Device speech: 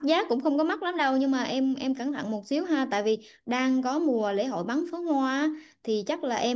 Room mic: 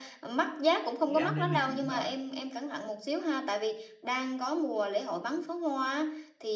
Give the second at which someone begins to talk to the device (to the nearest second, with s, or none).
1 s